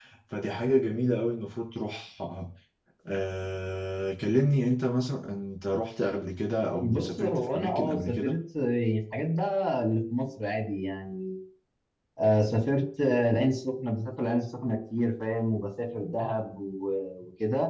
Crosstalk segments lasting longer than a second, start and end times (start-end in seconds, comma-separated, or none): 6.8-8.4